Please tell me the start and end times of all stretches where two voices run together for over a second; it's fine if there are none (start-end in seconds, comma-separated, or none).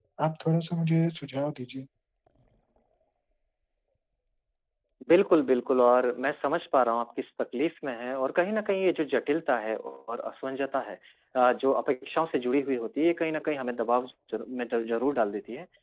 none